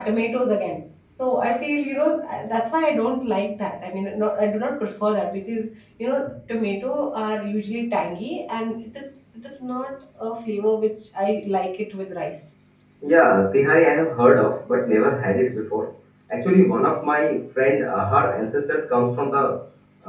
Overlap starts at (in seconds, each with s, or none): none